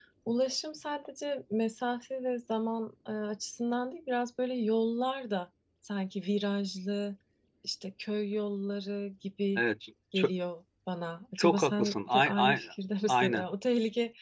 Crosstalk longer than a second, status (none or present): present